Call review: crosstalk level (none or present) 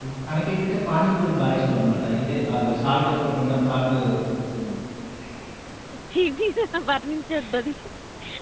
none